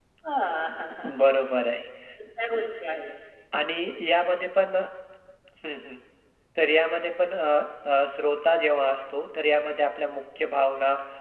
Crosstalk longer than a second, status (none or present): none